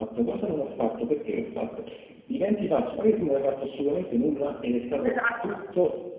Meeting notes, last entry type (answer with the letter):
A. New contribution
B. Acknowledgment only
B